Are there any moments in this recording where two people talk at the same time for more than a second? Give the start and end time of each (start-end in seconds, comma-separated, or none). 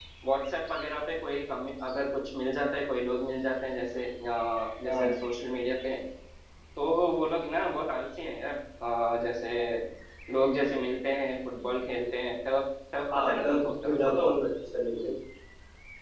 13.2-14.3